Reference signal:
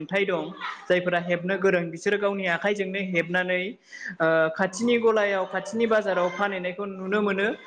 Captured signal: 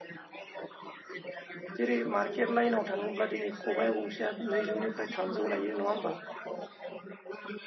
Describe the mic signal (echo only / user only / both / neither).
both